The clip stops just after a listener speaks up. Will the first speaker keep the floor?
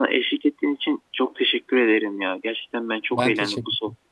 Yes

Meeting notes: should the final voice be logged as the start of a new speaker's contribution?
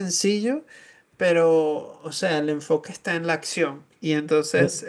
No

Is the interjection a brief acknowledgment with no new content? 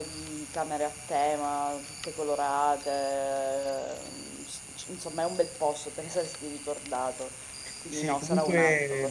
No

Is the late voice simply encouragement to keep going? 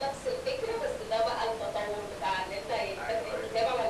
Yes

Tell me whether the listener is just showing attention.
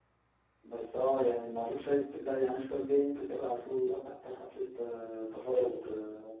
Yes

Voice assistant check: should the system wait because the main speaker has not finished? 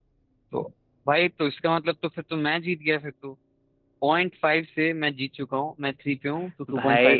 No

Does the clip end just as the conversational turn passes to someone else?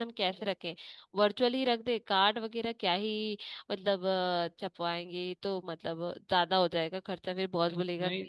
No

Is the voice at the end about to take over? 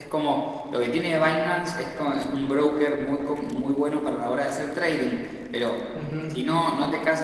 No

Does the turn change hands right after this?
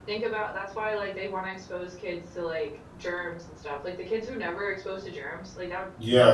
Yes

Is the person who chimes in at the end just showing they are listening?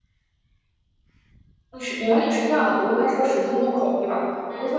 Yes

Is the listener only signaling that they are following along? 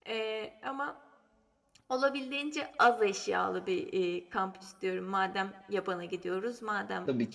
Yes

